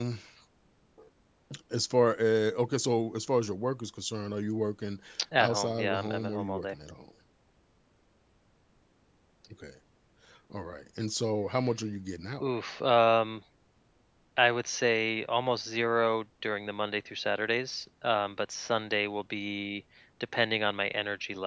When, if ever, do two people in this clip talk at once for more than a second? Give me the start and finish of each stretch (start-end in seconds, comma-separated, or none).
5.4-6.8